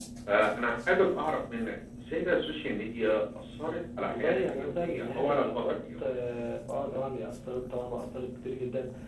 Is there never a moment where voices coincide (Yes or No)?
No